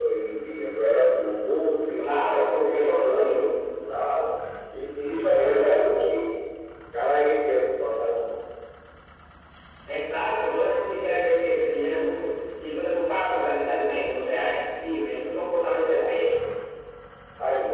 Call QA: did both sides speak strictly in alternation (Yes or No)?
No